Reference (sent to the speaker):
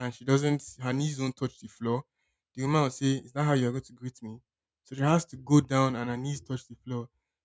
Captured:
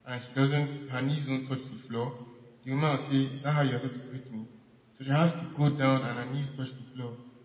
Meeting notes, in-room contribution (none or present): none